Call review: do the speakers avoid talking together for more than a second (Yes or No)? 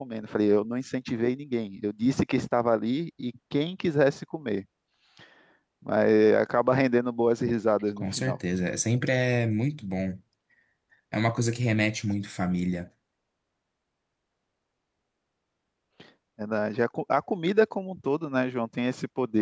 Yes